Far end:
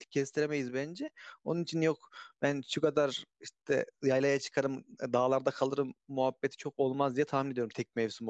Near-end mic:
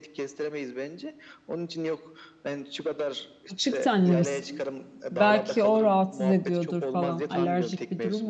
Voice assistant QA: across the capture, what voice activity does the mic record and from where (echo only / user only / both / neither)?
both